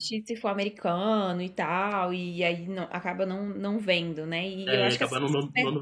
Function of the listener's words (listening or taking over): taking over